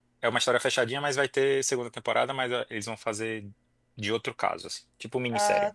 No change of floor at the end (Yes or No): No